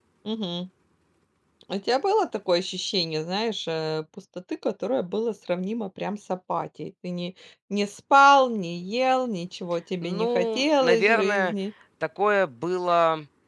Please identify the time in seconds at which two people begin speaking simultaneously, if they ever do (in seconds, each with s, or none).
10.0 s